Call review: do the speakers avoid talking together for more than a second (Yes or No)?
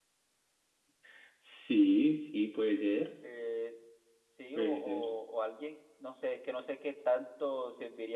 Yes